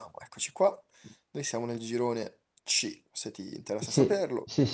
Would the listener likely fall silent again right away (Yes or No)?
No